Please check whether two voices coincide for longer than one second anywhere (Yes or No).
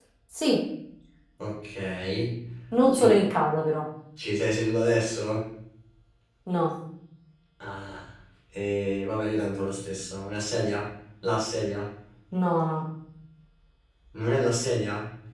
No